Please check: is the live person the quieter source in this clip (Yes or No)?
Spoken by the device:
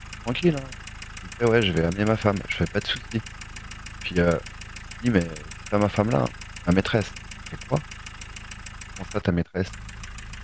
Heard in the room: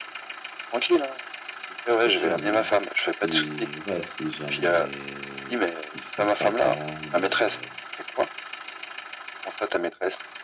Yes